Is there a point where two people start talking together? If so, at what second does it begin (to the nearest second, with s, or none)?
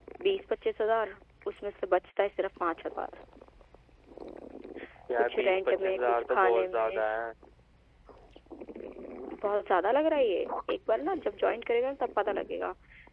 5 s